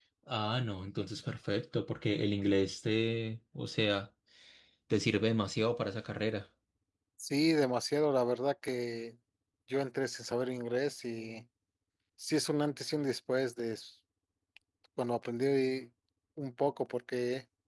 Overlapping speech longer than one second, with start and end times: none

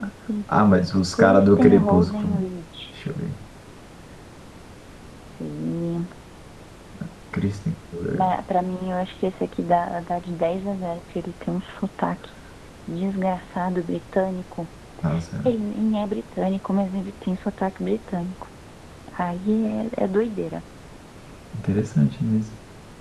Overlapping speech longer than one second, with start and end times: 1.2-2.4

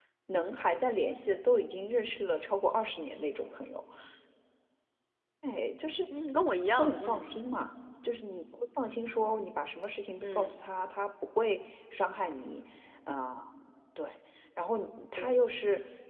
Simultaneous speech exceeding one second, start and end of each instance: none

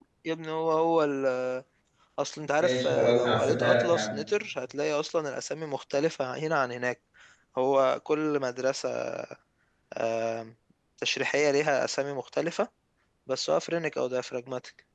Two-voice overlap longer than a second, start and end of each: 2.6-4.1

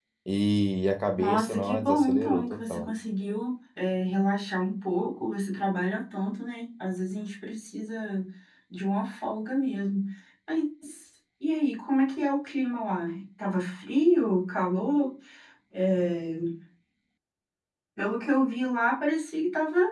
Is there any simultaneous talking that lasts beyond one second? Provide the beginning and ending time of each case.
1.2-2.9

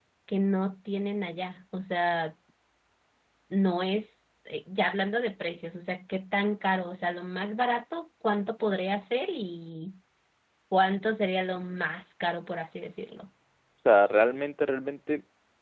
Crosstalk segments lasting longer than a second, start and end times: none

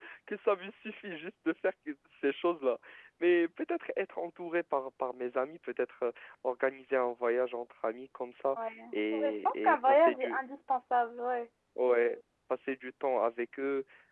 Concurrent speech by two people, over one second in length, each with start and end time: 9.1-10.4

